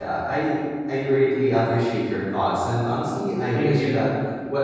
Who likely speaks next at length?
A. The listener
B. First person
B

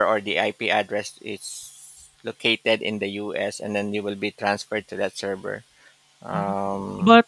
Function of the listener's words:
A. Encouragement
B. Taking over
B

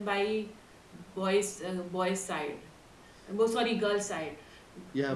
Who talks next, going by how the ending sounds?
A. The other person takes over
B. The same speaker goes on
B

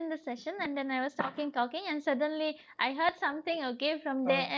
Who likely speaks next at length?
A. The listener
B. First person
B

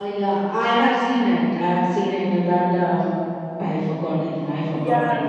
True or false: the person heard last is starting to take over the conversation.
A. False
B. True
B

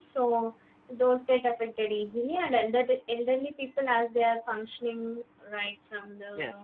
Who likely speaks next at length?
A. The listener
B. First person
A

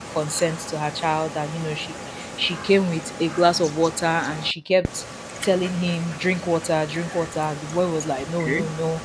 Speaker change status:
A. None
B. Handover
A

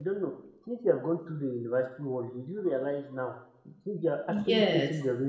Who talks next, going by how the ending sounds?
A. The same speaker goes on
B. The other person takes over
A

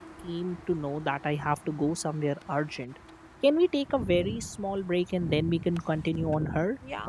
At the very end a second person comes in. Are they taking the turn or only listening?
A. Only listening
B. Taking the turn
B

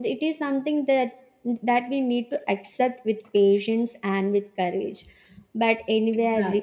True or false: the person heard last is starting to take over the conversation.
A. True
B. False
B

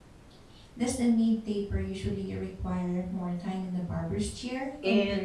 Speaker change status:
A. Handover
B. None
A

